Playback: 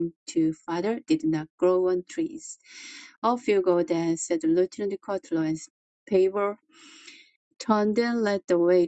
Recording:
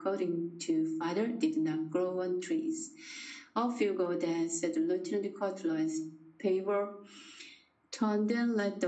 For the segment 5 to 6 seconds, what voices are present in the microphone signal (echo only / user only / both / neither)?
echo only